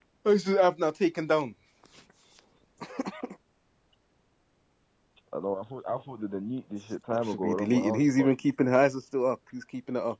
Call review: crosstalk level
present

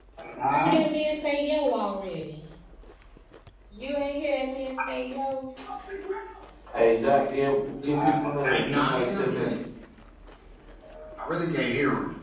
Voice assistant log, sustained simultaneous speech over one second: present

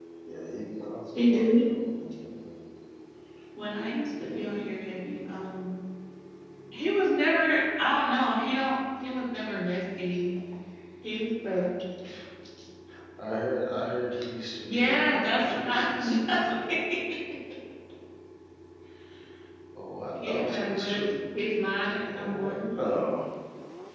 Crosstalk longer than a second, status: present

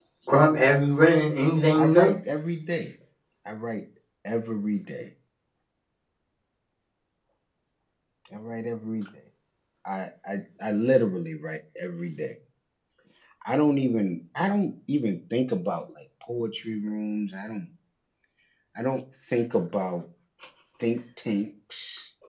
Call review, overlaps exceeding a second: none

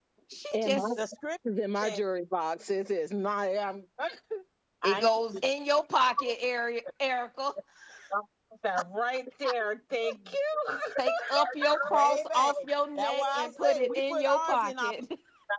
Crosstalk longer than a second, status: present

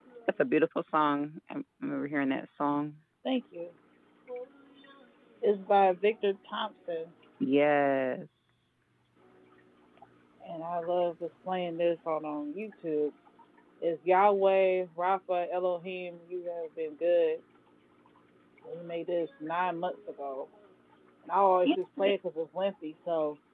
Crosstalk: none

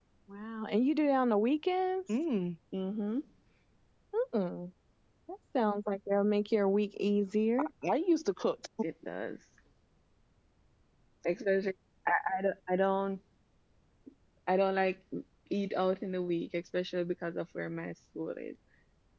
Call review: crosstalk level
none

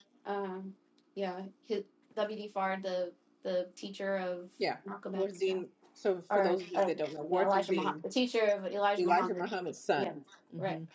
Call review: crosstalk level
present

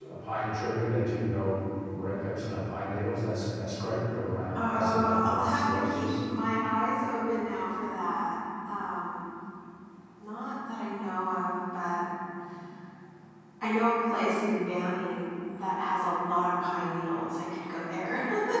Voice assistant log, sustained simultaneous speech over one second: present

